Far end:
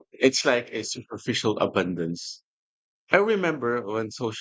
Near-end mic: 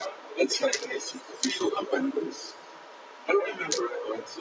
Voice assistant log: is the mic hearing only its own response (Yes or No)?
Yes